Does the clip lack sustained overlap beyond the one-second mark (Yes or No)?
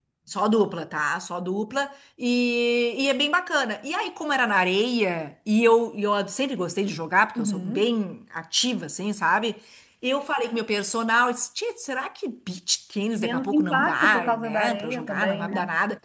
No